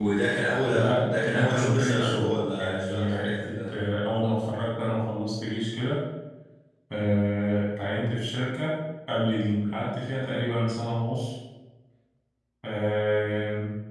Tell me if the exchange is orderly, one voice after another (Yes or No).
No